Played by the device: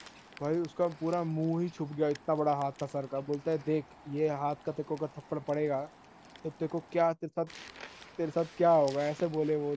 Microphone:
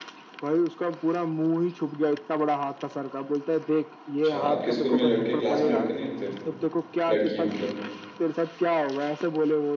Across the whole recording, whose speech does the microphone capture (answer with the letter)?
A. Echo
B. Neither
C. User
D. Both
D